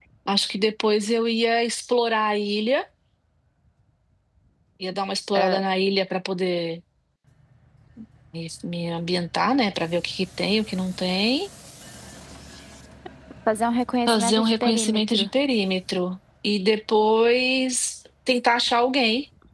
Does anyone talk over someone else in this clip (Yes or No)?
Yes